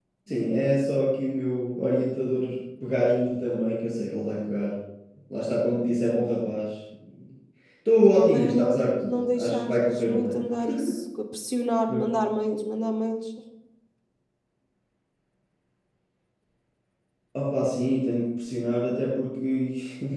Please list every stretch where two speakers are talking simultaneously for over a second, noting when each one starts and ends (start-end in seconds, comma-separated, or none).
8.1-10.4